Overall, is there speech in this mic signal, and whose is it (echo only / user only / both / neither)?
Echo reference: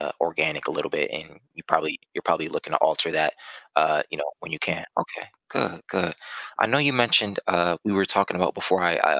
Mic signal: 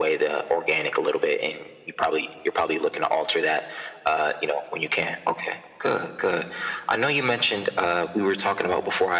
echo only